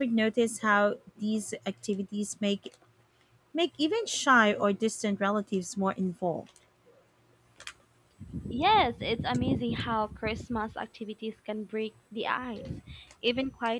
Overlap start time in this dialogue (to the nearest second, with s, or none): none